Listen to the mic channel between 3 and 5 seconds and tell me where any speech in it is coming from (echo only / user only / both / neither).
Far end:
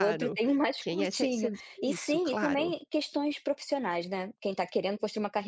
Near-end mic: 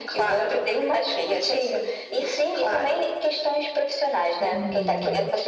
both